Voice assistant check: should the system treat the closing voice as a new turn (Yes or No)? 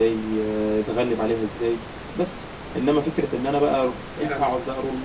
No